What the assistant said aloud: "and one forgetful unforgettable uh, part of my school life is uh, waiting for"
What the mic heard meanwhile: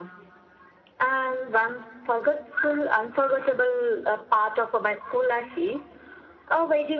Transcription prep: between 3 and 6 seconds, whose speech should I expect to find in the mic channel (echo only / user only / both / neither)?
echo only